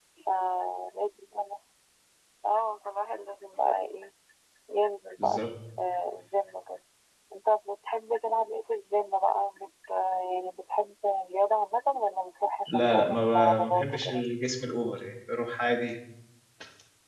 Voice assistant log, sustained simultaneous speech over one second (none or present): present